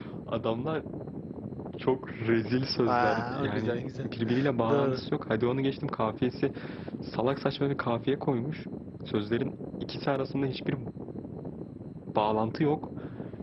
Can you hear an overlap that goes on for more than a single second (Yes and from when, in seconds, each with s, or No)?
Yes, from 2.9 s